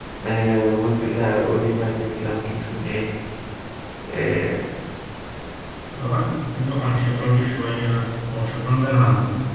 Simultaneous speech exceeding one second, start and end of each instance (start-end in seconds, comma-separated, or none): none